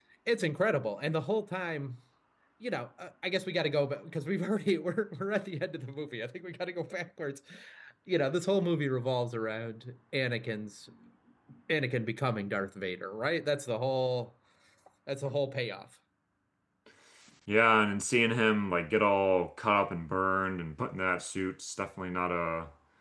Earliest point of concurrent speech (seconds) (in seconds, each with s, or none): none